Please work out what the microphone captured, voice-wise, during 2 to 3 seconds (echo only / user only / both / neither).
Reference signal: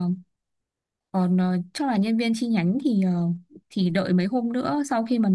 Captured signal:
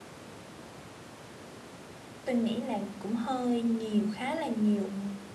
user only